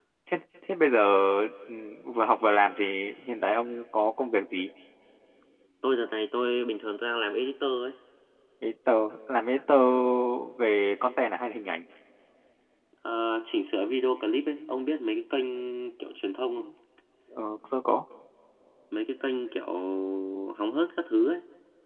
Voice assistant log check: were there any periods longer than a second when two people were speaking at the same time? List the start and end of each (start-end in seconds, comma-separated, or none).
none